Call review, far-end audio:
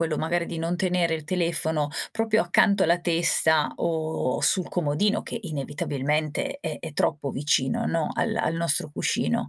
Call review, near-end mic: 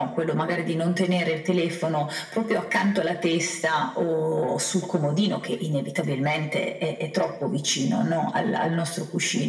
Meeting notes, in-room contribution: none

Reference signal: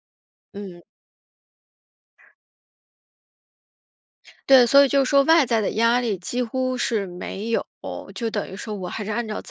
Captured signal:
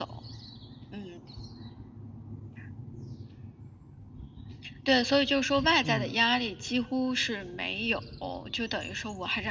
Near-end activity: present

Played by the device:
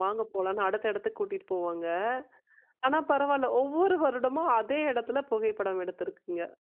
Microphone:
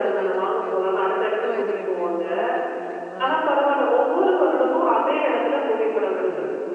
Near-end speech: present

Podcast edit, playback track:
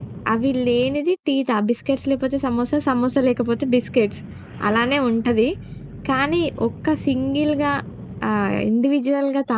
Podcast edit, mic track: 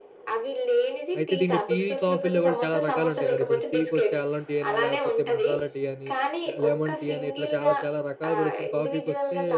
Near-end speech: present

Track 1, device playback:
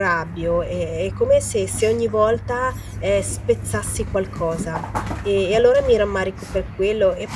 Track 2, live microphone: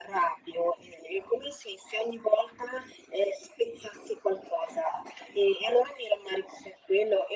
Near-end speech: none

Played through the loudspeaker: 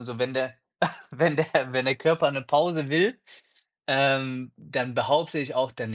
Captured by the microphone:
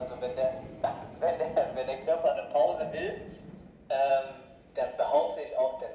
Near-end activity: none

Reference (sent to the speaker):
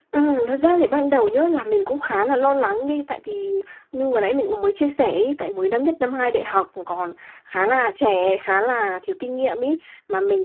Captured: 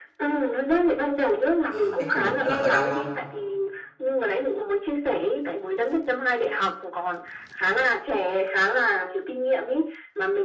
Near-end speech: present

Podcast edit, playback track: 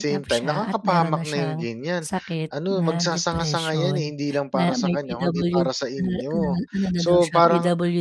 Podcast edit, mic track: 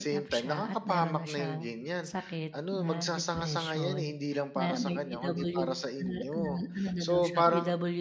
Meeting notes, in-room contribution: none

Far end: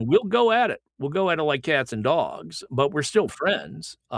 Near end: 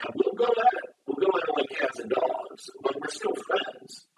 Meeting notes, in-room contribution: none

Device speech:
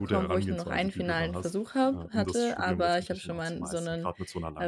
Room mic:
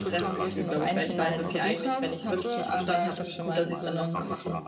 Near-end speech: present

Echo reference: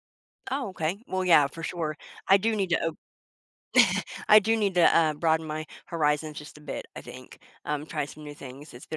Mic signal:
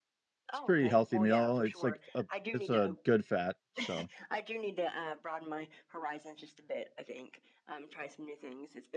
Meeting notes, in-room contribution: present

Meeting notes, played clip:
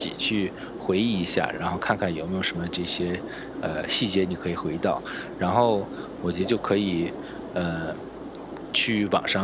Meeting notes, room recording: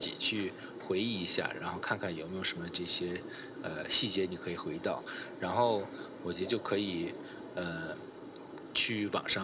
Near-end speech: none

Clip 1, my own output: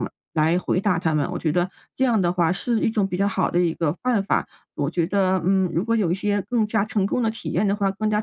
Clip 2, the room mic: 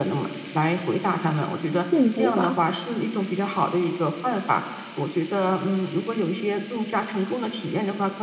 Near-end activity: present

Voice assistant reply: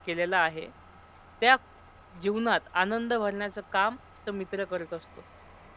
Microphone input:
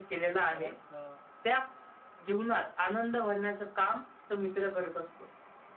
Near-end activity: present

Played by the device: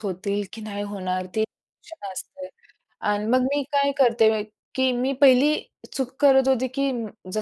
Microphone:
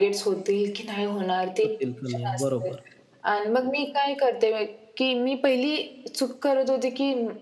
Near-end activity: present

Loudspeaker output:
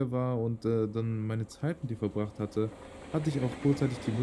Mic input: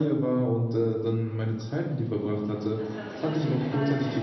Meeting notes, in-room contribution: present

